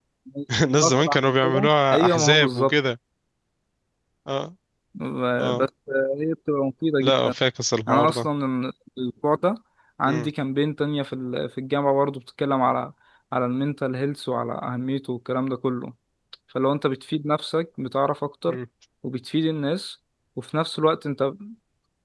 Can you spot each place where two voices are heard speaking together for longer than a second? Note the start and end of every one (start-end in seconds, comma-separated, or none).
0.6-2.7